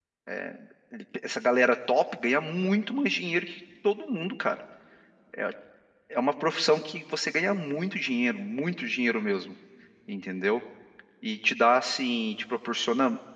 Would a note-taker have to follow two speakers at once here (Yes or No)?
No